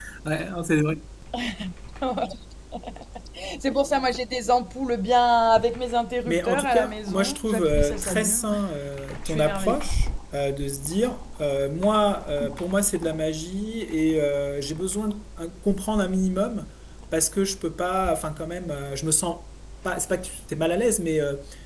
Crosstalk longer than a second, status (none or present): present